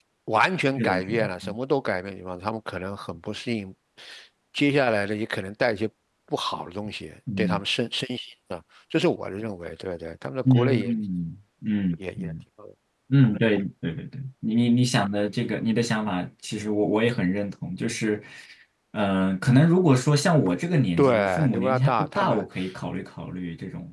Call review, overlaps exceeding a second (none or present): present